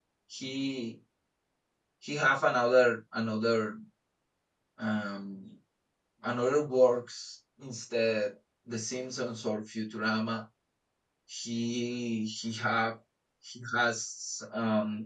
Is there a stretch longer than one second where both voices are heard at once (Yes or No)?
No